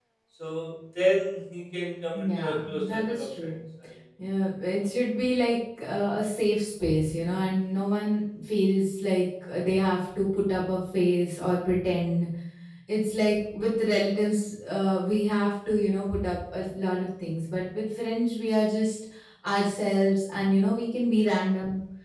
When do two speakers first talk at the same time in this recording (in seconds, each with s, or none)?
2.1 s